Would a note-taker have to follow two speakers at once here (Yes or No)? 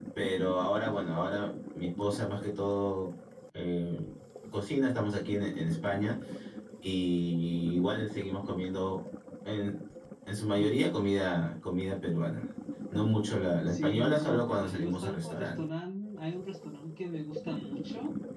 Yes